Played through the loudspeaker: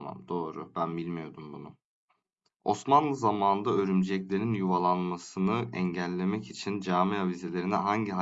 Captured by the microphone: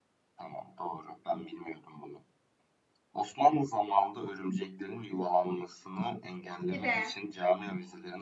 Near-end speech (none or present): present